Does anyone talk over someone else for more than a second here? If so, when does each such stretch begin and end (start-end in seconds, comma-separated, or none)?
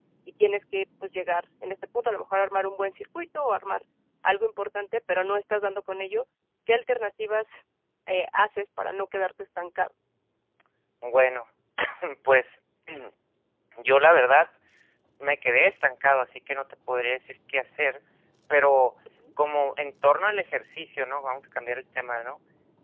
none